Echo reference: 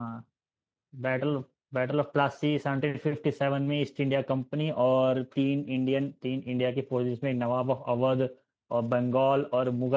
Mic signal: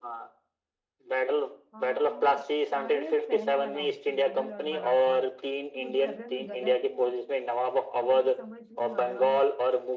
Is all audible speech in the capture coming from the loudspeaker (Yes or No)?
No